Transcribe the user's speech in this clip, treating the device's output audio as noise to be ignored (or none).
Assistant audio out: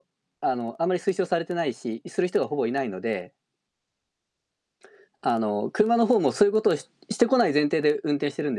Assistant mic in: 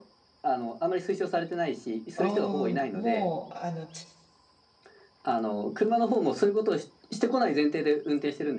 あ、うーん、もう、あの、違